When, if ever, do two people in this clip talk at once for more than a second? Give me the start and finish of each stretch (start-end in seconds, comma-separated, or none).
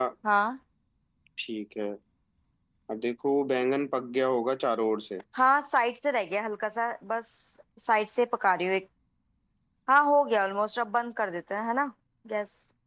none